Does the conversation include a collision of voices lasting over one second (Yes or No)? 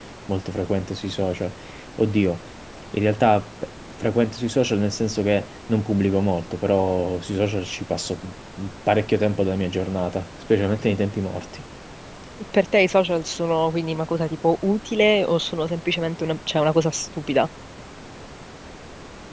No